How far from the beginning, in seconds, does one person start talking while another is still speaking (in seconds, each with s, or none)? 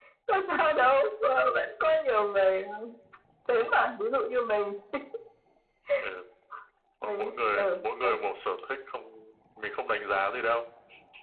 7.0 s